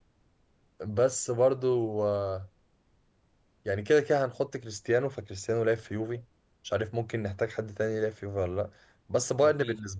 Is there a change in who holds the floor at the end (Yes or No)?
No